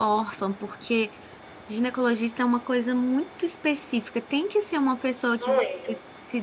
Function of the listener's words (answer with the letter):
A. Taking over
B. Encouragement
B